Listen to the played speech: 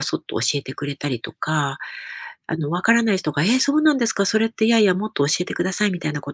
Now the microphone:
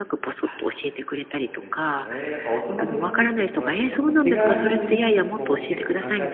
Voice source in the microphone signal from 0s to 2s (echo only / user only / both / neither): both